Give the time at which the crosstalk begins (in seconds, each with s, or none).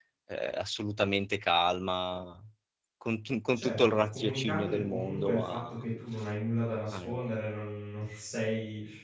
3.5 s